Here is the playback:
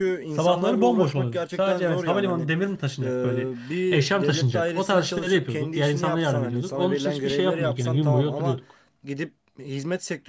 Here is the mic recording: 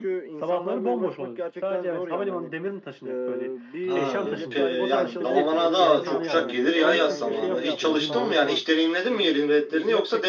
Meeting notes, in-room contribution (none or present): present